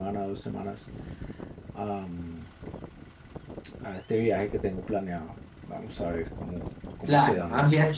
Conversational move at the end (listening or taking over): taking over